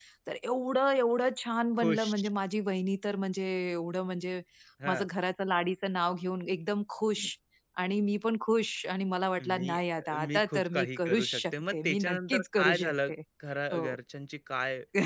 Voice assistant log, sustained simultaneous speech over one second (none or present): present